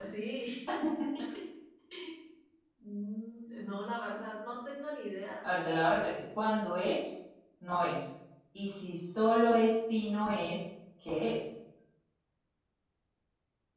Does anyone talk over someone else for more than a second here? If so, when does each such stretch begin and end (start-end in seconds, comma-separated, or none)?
none